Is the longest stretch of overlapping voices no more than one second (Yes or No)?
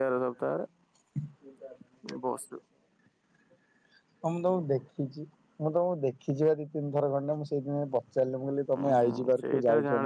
No